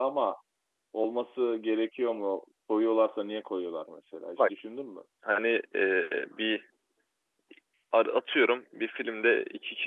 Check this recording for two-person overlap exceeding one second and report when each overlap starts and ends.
none

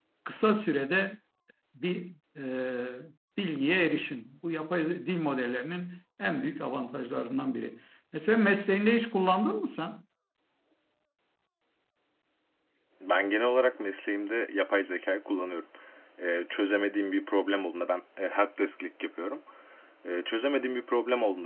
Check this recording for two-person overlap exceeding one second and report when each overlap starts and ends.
none

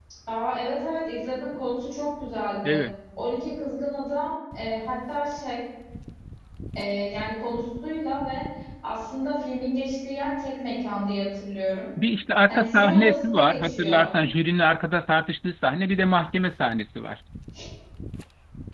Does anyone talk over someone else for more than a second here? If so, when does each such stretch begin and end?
12.5-14.1

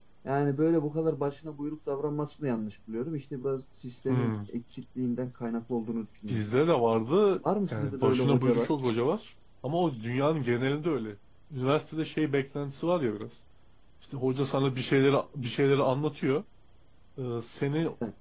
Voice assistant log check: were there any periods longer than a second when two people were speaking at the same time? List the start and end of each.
7.4-8.7

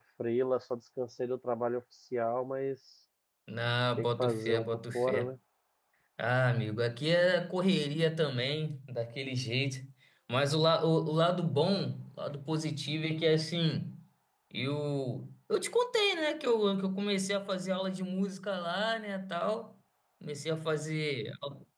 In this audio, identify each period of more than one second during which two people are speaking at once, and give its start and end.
4.0-5.3

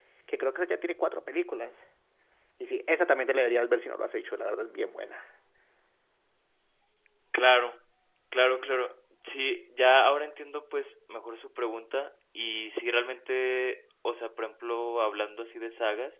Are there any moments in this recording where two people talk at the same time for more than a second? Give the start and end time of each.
none

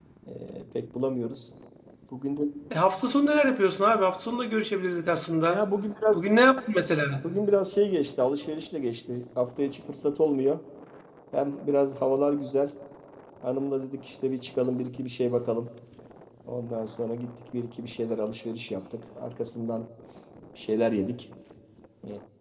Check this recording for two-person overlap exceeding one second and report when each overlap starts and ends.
none

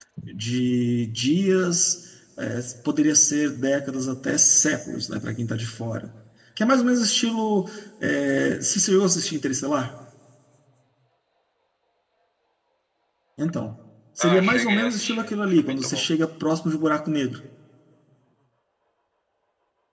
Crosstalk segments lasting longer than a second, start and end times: 14.2-16.0

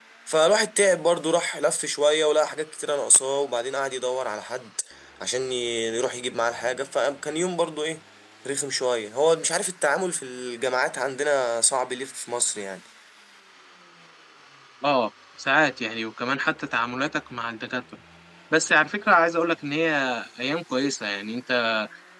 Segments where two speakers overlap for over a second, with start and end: none

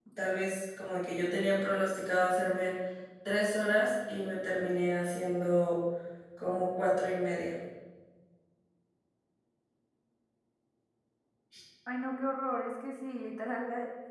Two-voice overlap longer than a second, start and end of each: none

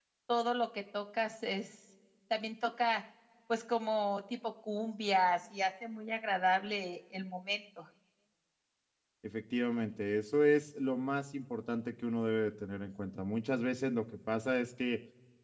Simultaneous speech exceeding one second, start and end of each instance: none

